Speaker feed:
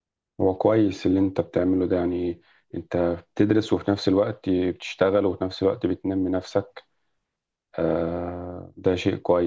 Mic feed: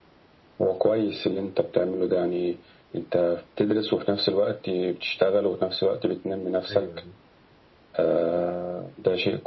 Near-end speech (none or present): present